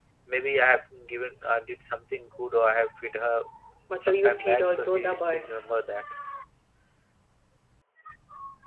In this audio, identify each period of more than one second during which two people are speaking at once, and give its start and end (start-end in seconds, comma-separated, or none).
4.0-5.6